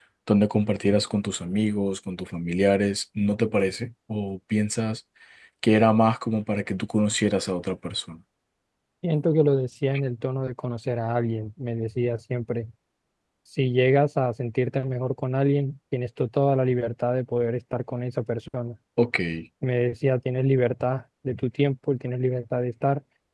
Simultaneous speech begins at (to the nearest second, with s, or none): none